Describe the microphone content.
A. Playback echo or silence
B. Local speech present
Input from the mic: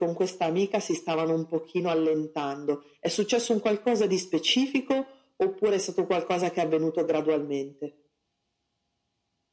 A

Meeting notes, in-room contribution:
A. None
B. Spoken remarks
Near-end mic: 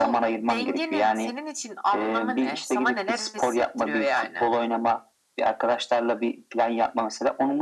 A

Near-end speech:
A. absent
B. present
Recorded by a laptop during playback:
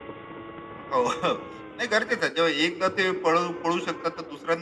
A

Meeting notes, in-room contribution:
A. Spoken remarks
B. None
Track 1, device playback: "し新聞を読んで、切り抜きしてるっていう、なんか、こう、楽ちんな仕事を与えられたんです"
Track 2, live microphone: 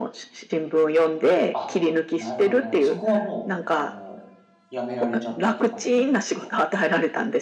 A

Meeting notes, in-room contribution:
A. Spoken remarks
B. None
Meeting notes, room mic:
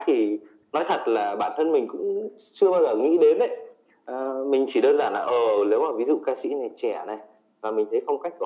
B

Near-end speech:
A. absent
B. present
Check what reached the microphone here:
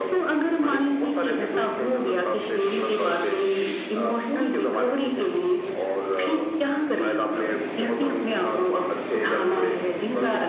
A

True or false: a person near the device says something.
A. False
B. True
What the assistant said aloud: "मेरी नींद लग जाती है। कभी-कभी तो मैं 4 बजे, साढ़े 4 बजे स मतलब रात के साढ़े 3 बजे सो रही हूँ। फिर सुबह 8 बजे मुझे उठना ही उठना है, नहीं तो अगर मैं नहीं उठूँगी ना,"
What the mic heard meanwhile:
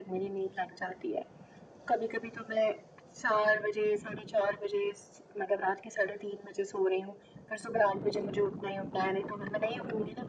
A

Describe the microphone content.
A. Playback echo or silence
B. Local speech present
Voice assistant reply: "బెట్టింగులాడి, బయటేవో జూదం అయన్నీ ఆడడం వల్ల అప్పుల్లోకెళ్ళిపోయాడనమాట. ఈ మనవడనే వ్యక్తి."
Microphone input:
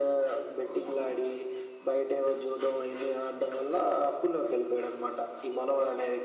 A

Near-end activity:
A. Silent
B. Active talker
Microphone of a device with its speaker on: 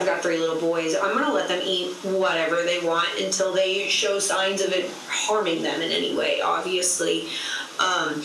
A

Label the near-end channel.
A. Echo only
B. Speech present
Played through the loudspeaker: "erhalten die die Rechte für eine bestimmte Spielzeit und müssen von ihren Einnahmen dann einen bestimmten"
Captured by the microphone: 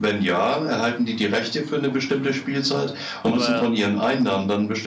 B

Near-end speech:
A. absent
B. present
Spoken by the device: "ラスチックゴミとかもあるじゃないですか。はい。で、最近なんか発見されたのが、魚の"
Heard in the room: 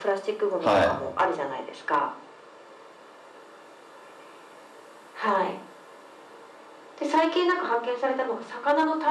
B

